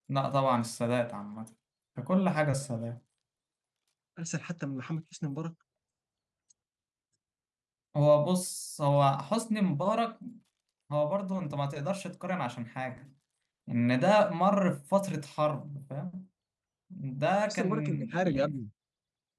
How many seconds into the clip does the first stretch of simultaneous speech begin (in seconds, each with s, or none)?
17.3 s